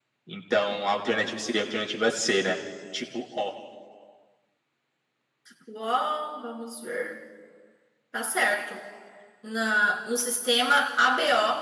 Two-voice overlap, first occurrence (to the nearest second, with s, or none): none